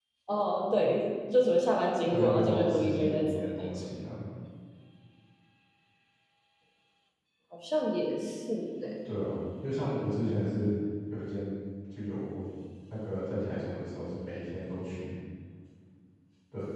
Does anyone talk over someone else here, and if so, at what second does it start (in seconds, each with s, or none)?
2.0 s